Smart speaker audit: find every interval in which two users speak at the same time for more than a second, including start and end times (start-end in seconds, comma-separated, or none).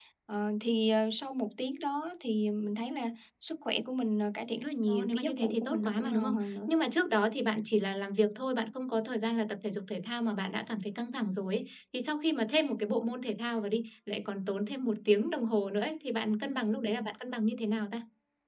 4.9-6.7